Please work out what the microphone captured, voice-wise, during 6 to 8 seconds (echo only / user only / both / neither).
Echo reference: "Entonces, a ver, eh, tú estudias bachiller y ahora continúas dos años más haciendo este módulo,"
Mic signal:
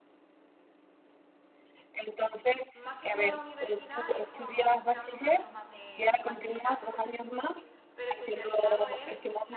both